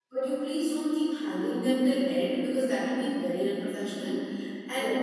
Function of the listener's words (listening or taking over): listening